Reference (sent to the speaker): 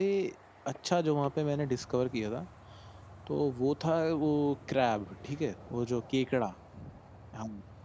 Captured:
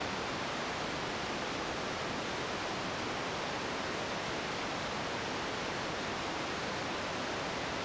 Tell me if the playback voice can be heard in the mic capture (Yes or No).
No